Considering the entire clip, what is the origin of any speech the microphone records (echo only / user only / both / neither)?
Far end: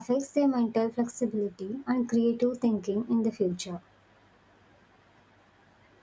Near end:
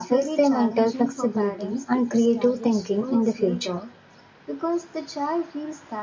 both